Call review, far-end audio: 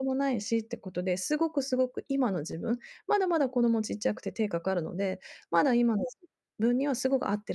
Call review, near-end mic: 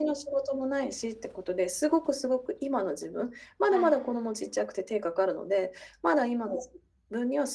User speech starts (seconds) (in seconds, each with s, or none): 3.7 s